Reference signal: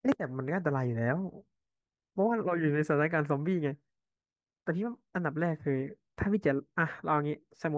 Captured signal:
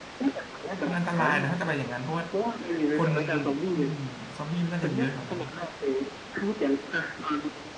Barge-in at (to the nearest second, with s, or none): 1 s